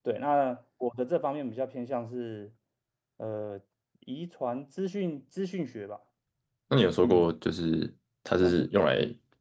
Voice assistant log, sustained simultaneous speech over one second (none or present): none